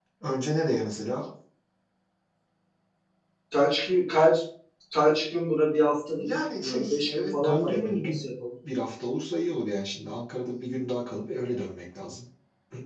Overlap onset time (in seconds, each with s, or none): 6.2 s